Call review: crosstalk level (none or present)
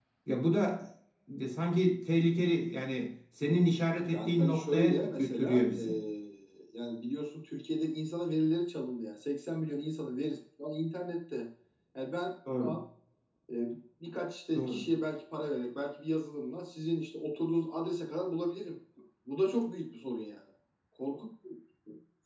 present